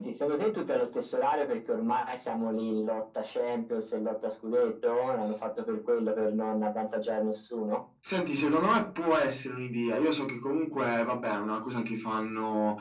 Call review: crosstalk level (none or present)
none